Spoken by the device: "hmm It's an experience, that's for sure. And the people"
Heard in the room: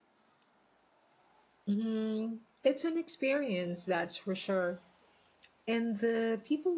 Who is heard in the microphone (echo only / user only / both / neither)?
echo only